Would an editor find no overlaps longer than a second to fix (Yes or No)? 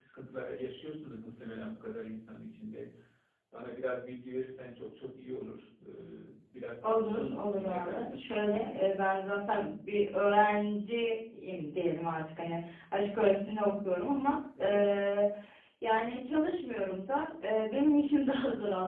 No